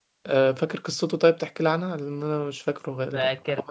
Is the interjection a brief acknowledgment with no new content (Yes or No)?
No